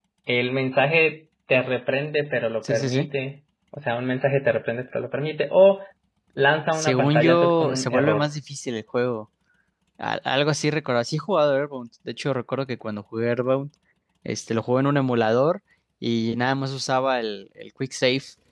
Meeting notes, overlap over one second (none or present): present